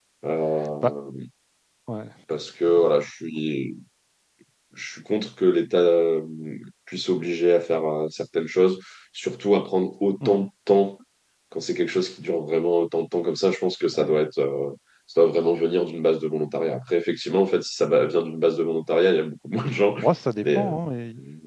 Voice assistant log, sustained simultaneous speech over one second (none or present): none